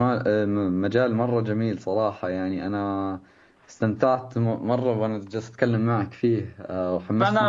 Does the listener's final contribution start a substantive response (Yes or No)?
Yes